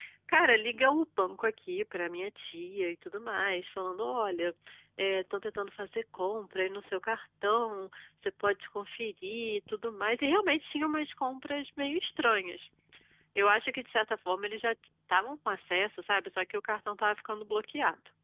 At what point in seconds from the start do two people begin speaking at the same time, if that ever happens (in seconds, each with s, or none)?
none